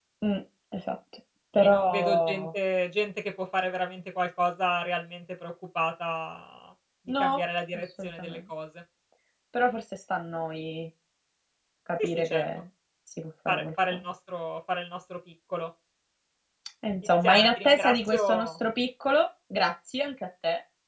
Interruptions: present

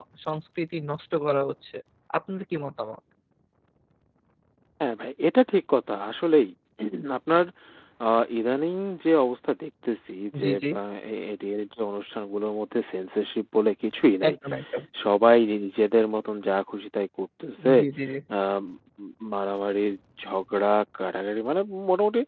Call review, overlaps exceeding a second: none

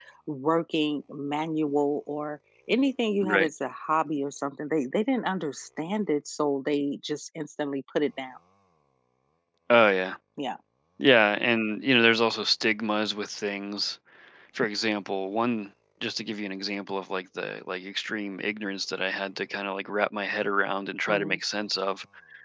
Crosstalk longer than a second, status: none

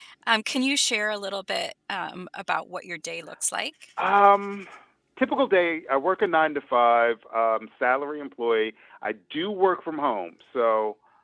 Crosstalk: none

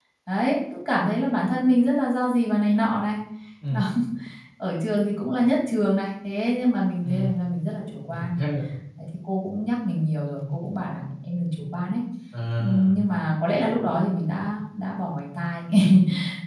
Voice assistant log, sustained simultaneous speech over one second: none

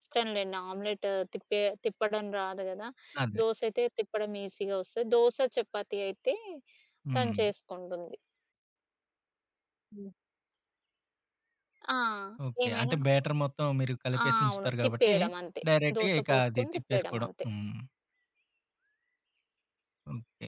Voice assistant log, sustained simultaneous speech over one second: present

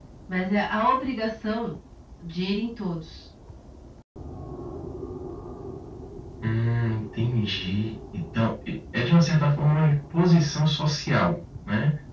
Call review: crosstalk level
none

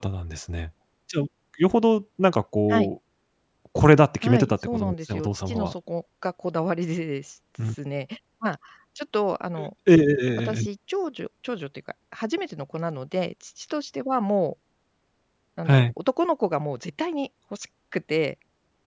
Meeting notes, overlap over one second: present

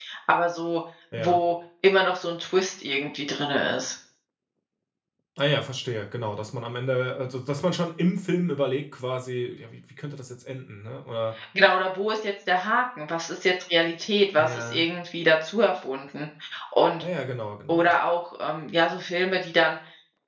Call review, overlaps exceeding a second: none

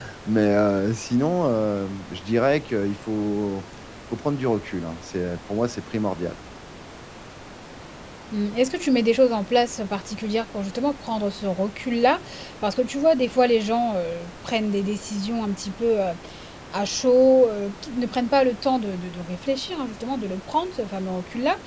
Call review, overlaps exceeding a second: none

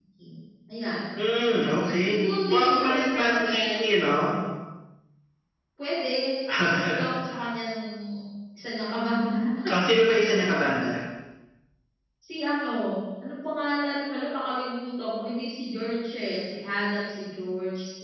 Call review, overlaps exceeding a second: present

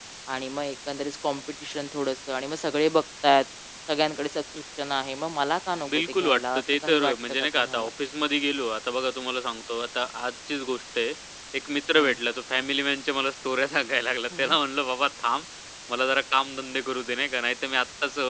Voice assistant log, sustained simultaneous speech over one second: present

